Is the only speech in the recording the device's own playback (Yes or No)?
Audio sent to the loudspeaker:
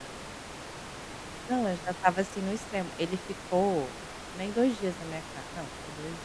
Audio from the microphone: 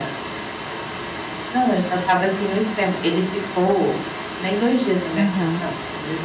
No